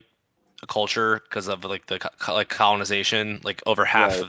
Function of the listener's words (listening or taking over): listening